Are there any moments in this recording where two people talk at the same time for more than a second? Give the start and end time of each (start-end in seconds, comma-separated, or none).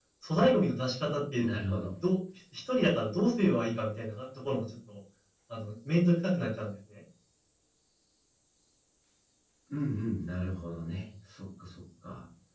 none